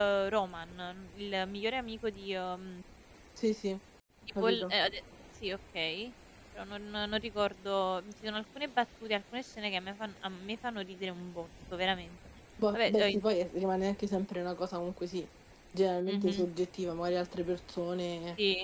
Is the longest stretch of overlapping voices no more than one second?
Yes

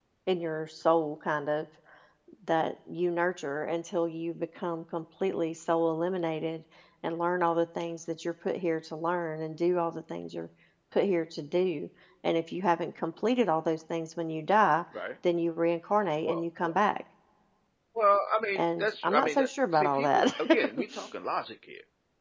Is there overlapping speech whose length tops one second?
Yes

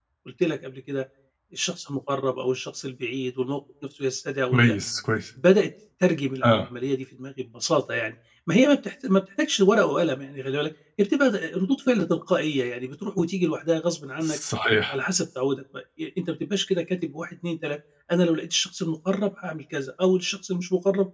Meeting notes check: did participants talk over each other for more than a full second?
No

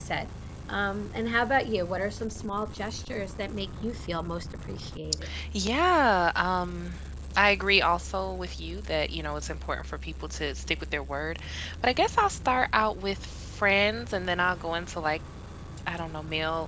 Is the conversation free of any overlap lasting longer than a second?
Yes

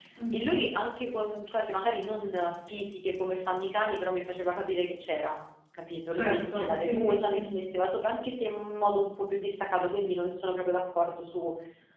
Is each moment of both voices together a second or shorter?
No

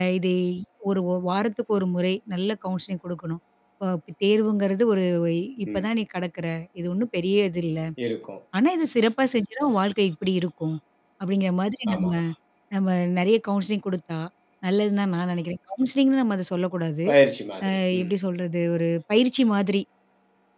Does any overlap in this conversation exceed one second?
No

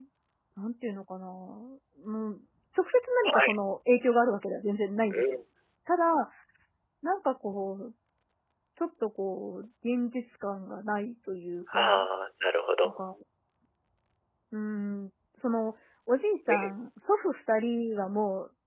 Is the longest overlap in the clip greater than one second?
No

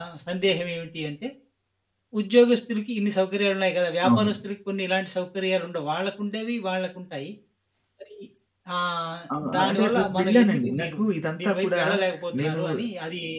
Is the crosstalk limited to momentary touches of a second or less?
No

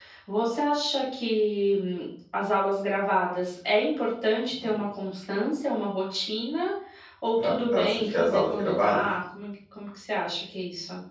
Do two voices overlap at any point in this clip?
Yes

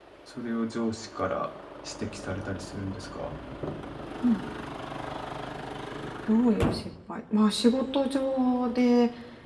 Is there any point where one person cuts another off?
No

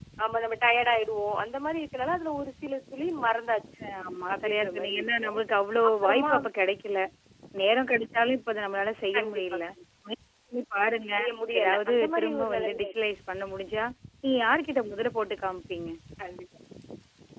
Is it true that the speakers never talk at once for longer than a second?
No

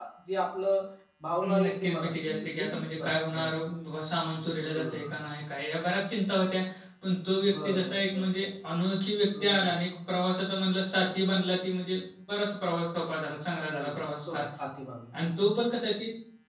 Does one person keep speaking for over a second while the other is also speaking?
Yes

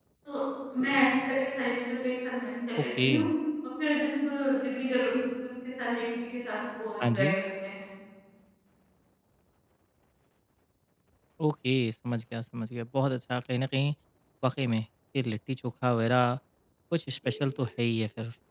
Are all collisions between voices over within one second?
Yes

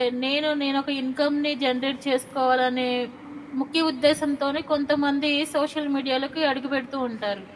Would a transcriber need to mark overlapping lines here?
No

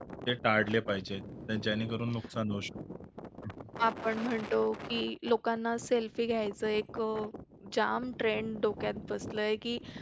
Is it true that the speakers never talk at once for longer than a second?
Yes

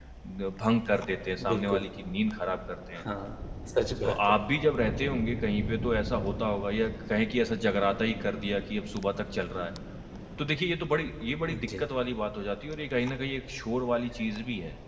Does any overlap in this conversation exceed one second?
No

